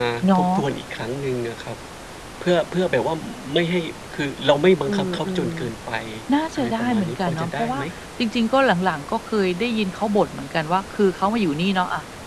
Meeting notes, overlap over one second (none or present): present